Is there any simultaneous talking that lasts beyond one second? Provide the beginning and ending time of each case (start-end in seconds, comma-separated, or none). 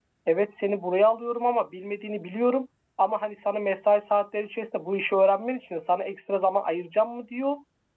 none